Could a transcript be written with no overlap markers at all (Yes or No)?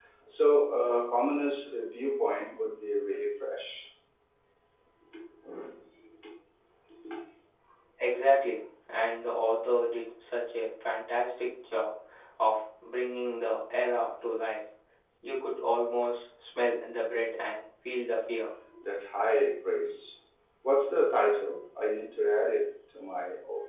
Yes